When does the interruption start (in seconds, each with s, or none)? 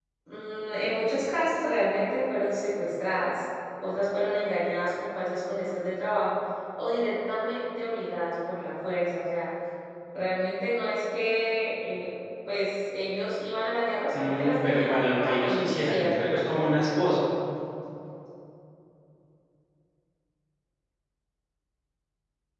14.1 s